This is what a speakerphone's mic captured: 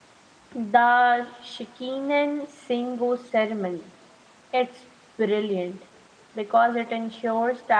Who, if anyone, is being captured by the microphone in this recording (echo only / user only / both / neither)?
user only